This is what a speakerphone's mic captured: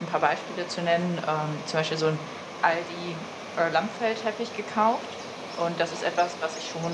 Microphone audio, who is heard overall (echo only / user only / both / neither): user only